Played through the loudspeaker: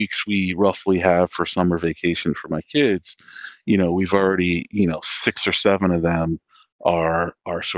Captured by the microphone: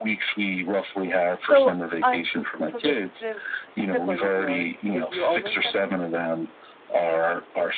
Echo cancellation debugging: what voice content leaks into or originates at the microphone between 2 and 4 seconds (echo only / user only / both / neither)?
both